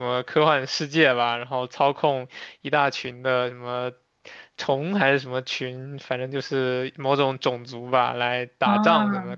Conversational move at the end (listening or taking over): listening